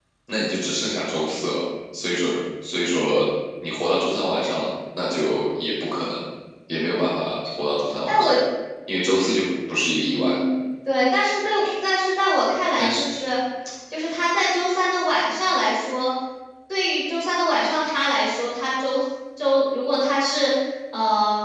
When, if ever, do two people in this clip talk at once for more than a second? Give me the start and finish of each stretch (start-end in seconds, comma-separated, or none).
none